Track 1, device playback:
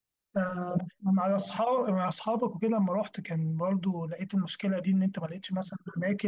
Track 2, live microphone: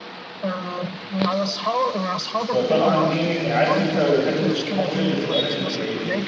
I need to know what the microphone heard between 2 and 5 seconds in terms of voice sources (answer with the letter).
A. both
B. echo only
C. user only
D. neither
A